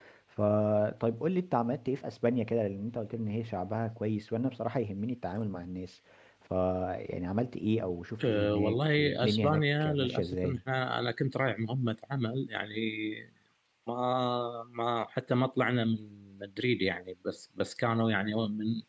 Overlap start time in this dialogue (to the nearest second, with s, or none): 8 s